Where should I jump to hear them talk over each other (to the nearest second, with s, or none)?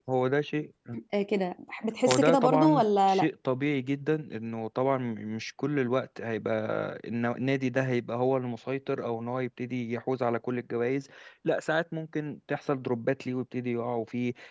2 s